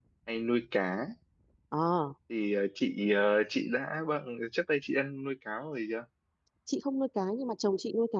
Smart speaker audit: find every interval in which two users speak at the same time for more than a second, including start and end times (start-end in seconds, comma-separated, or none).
none